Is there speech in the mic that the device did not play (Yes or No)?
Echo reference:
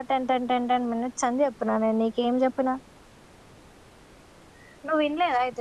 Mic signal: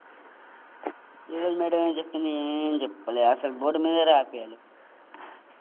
Yes